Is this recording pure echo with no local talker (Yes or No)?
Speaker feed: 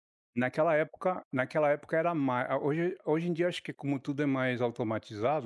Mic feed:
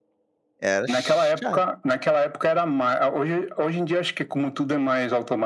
No